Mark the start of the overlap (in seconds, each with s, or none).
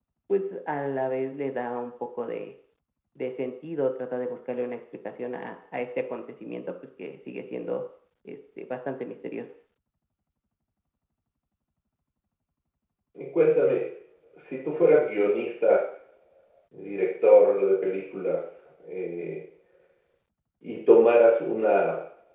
none